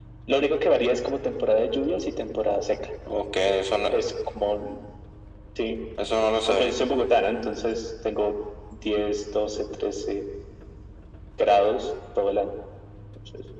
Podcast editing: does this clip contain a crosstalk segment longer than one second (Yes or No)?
No